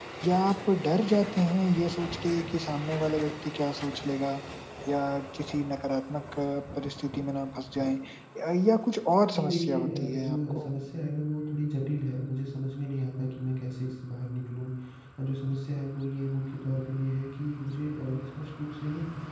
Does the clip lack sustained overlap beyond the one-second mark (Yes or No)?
No